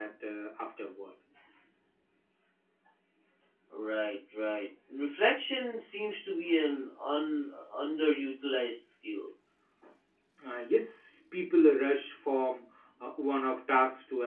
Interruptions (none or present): none